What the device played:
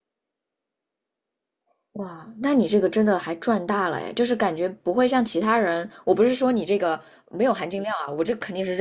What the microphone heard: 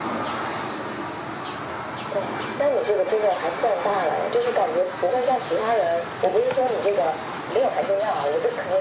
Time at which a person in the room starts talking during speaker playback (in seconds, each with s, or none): none